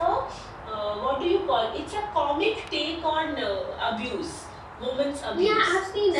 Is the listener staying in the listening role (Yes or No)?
No